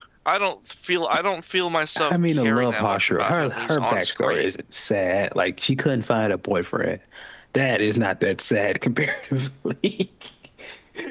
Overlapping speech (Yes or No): Yes